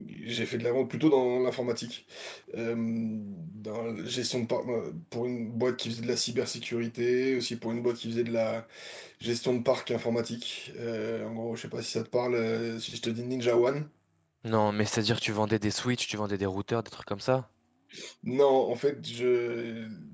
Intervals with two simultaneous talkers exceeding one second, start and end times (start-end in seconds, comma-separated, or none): none